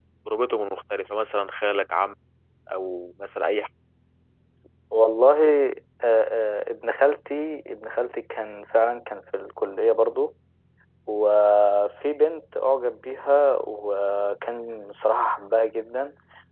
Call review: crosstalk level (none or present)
none